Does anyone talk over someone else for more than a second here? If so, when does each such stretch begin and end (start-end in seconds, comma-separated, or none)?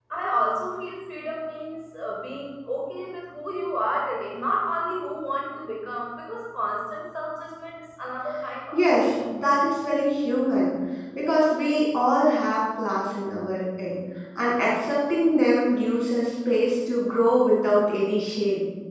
none